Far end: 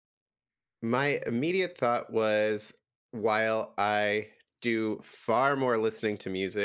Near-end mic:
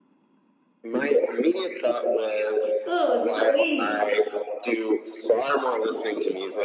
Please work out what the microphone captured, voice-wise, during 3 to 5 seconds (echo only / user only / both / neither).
both